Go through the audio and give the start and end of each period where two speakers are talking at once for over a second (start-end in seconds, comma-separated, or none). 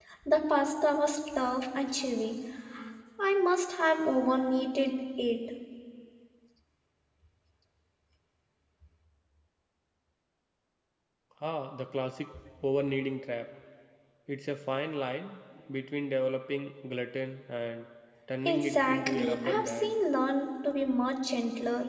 18.4-19.9